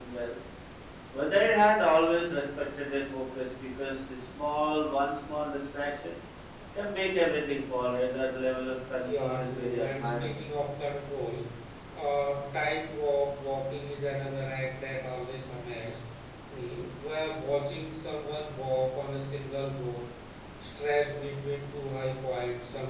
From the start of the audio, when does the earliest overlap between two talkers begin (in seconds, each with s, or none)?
9.0 s